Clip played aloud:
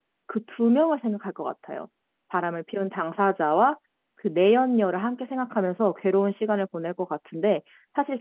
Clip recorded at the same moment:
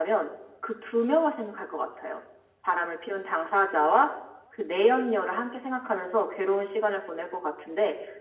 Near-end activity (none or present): none